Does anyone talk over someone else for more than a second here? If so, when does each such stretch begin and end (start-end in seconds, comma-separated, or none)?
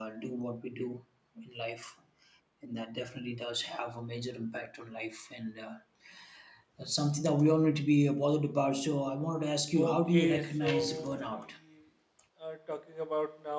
9.8-11.3